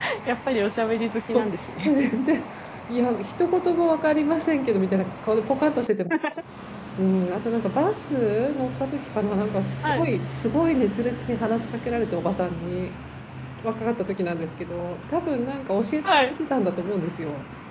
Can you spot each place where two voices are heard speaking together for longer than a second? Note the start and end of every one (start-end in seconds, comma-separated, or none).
none